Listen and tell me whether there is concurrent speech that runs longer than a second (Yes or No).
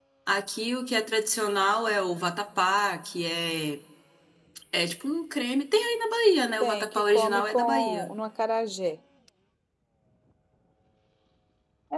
Yes